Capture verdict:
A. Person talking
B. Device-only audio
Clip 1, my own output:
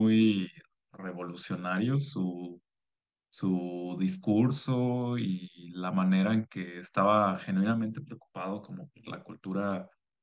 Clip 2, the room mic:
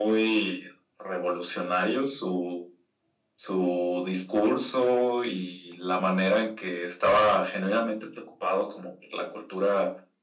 B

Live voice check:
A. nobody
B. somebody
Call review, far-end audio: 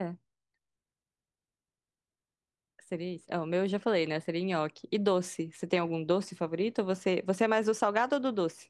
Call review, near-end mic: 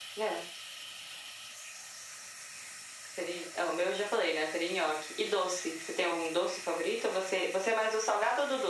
A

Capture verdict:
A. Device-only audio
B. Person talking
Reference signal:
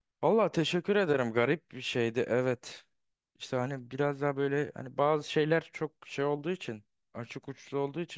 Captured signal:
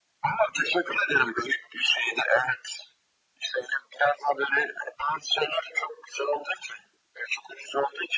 A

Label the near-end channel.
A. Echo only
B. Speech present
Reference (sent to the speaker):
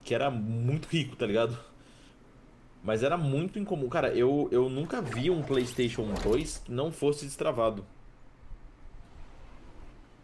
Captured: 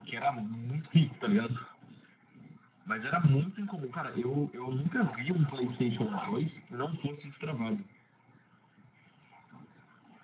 A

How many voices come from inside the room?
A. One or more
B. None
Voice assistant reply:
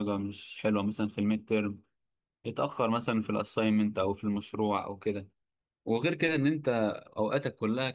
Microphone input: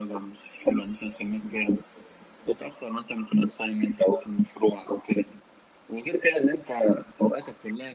B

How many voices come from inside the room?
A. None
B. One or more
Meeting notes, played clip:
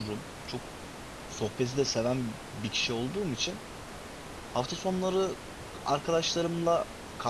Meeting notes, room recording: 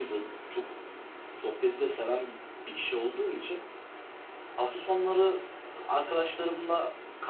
A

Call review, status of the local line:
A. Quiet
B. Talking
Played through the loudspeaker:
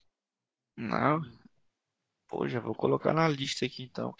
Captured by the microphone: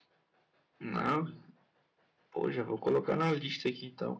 A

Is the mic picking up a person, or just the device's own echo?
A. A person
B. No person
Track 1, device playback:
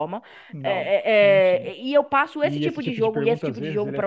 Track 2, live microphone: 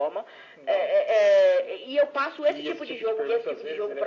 B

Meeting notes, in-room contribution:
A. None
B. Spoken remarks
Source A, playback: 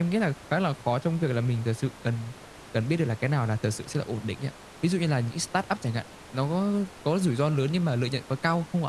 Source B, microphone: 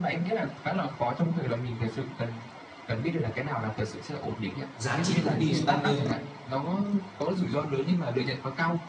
B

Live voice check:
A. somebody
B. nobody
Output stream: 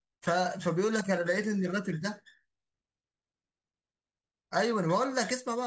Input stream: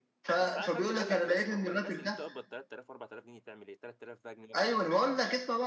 A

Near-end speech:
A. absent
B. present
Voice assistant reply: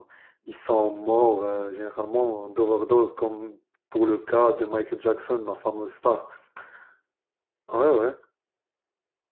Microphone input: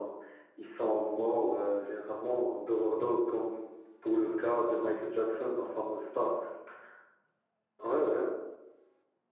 A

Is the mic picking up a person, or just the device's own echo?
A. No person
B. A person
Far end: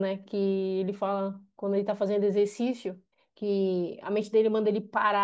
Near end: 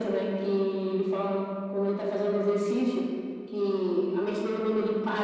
A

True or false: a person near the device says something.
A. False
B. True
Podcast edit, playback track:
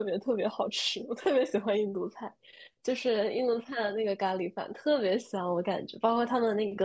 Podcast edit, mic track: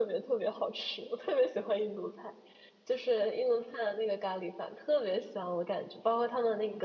A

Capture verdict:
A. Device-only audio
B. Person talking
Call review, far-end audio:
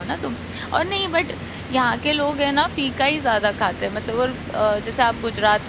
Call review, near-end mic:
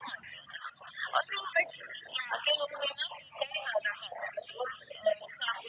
A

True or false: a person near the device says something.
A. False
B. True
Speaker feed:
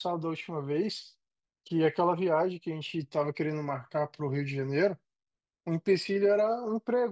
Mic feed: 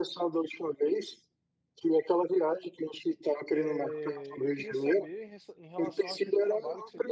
B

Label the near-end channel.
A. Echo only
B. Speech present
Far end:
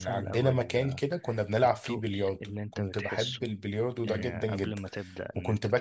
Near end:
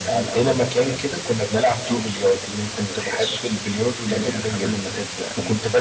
A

